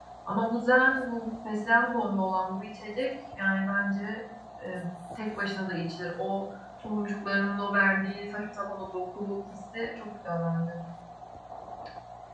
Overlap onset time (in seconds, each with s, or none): none